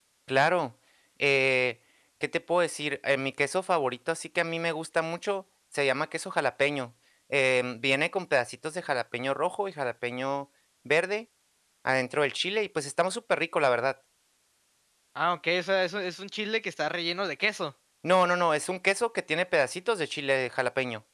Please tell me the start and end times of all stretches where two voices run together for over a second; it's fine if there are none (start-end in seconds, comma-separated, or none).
none